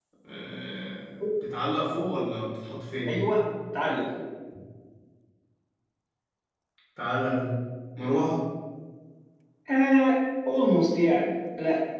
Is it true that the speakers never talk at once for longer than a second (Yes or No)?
Yes